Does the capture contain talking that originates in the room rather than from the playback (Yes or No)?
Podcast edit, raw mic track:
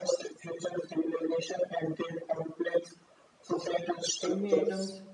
Yes